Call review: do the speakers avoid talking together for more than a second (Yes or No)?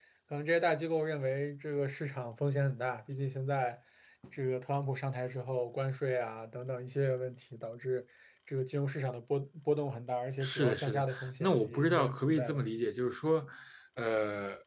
No